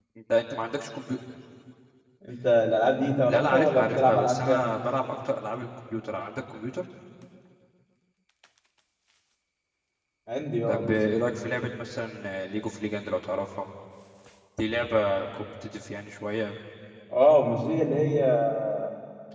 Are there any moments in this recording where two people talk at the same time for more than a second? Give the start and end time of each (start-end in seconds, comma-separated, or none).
3.3-4.7